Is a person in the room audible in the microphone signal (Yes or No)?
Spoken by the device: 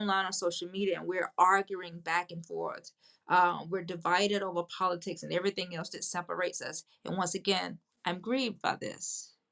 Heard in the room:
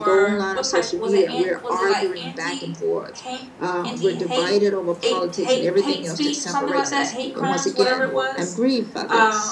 Yes